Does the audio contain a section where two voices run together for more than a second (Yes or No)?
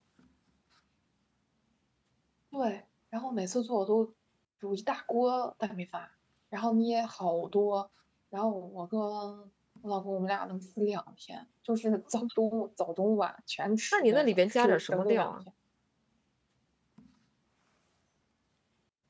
Yes